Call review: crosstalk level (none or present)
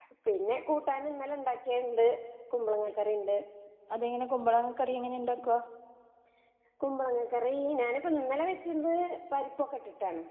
none